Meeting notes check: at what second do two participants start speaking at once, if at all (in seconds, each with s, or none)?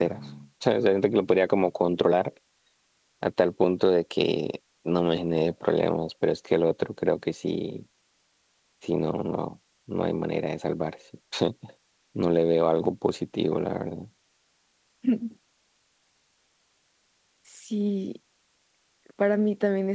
none